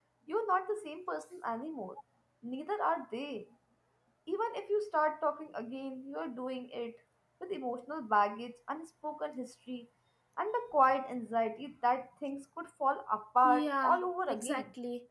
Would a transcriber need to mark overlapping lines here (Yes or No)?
Yes